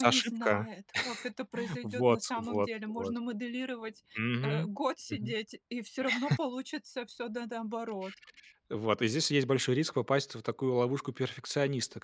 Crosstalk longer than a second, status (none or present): present